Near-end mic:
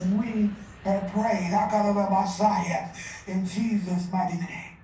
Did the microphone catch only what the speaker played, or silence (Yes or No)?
Yes